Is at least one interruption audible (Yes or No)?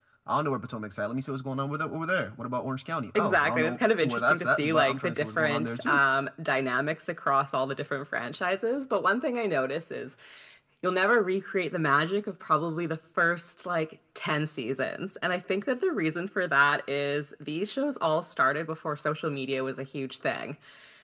Yes